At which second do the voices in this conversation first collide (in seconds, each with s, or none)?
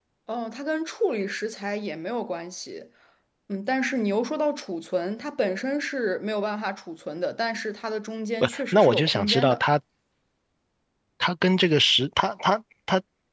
8.4 s